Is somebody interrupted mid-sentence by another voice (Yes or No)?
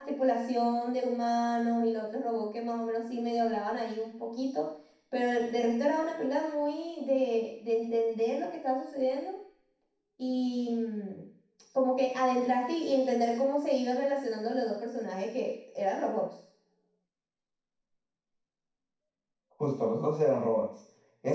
No